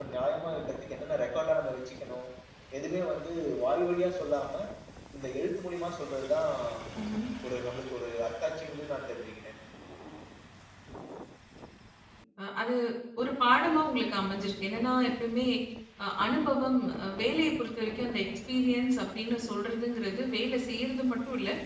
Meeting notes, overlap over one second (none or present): none